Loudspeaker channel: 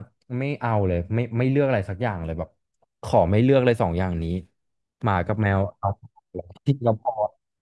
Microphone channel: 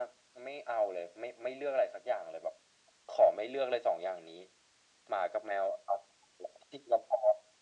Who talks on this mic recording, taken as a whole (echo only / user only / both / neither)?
echo only